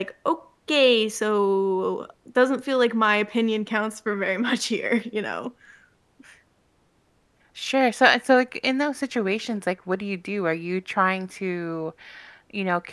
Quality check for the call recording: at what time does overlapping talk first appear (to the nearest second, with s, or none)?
none